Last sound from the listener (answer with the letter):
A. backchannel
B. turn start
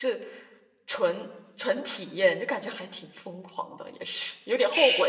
A